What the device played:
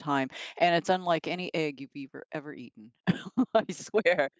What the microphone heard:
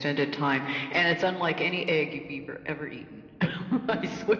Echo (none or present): present